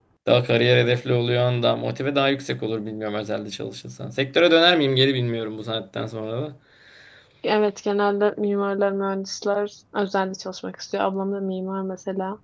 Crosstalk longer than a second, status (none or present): none